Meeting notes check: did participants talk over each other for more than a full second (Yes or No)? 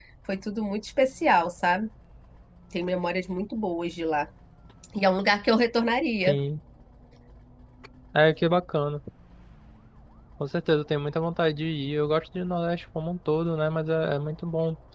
No